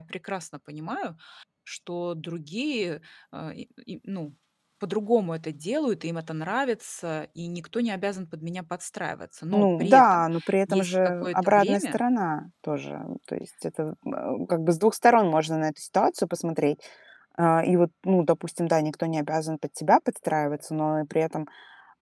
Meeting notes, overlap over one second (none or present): present